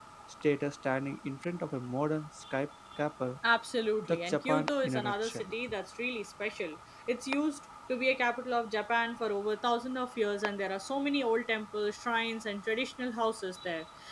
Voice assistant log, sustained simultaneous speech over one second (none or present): present